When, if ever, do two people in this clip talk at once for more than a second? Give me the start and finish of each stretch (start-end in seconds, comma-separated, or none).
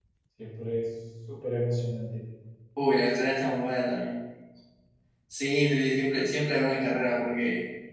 none